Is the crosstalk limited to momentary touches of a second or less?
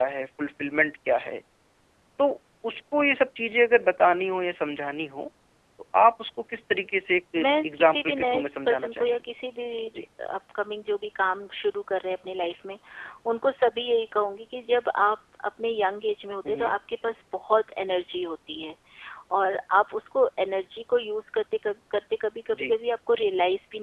No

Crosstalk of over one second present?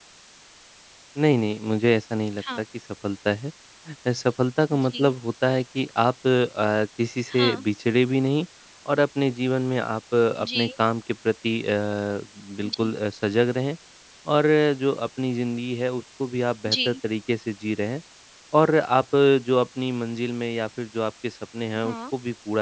No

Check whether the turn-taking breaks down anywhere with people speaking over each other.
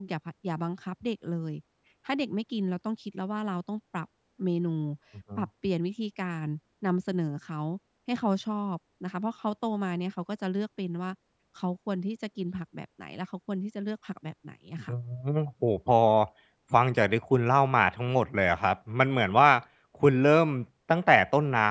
No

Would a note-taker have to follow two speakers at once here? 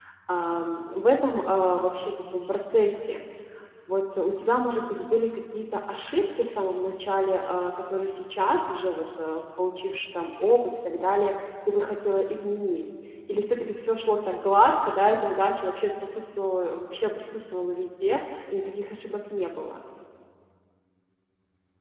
No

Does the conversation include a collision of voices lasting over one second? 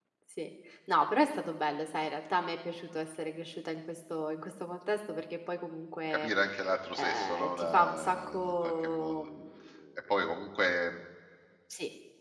Yes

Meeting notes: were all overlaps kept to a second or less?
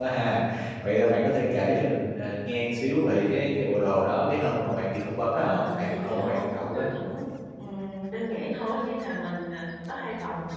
No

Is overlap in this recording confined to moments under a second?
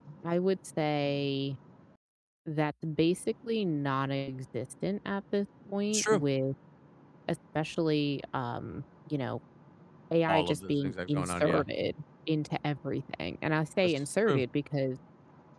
No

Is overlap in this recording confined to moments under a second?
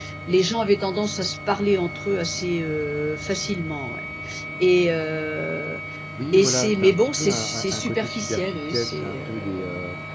No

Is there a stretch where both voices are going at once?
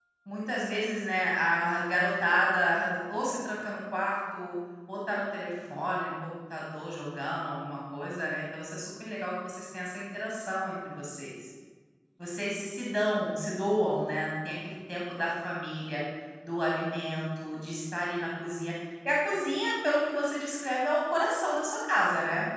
No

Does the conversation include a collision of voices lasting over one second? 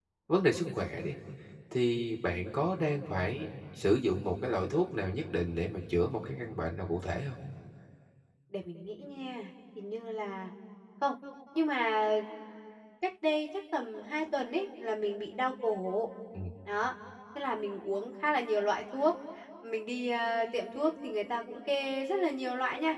No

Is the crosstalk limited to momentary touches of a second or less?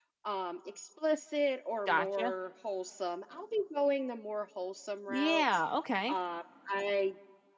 Yes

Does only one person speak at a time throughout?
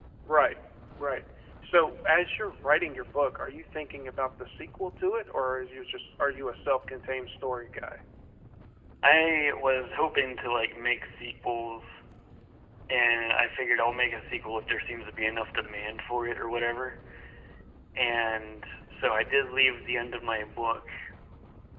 Yes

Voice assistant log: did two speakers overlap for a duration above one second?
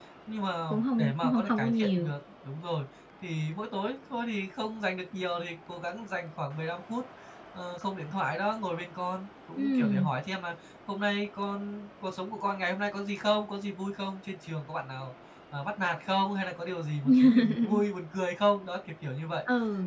Yes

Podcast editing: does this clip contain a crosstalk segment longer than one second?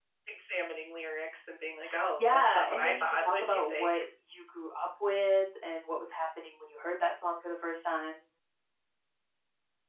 Yes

